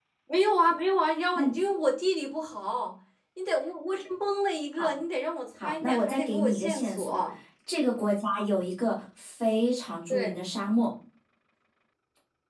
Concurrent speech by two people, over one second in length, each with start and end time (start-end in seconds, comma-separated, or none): 5.6-7.2